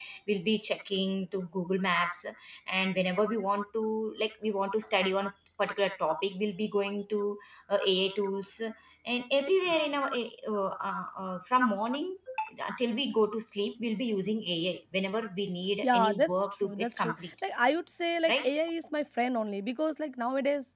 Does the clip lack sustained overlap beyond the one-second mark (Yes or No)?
No